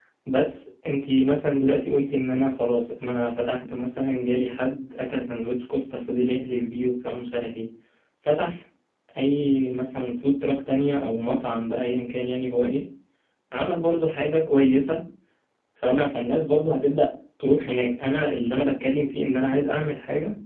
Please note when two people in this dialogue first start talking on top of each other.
none

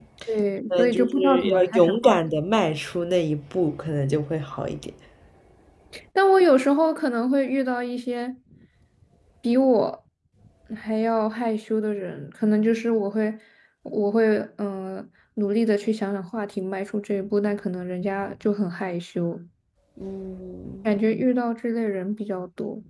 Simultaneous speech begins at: 0.7 s

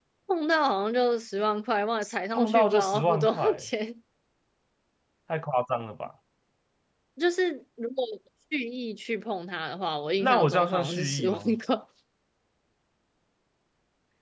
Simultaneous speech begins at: 2.3 s

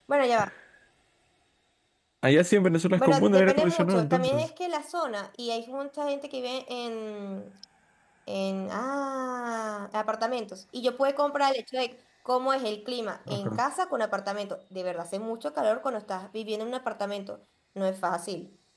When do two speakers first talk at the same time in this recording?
3.0 s

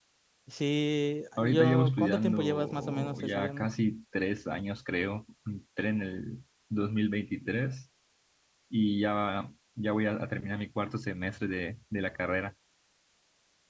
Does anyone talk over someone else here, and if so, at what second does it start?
1.4 s

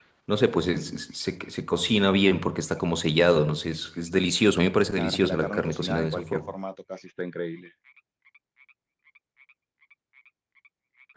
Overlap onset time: 5.0 s

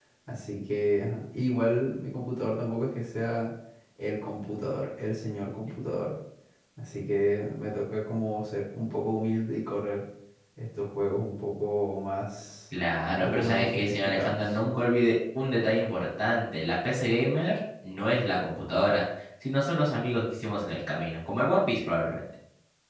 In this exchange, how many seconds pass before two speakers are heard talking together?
13.2 s

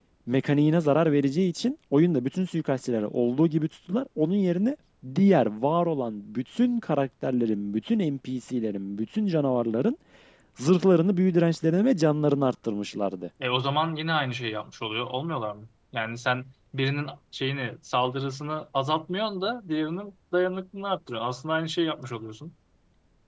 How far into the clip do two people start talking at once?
none

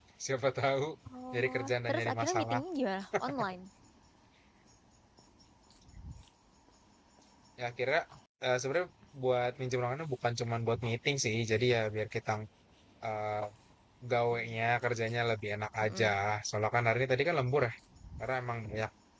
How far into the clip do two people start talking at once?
1.3 s

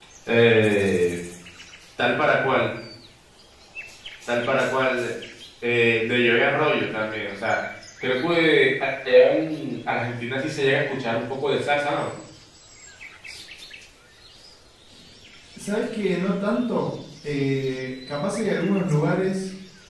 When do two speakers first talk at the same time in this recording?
none

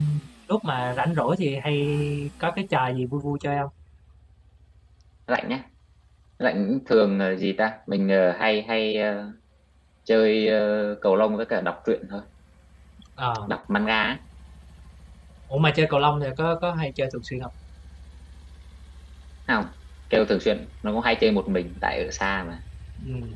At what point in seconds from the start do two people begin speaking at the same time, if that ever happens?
none

